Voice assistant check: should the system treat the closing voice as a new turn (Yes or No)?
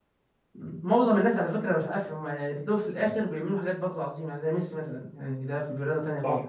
Yes